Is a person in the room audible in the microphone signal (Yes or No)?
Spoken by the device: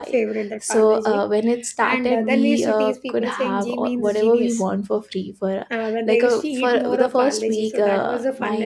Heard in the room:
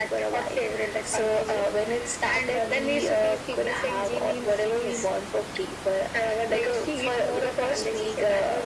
No